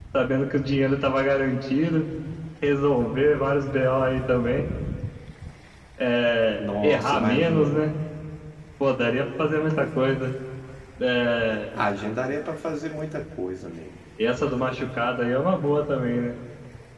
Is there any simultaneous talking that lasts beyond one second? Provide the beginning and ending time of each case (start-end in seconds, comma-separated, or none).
6.6-7.8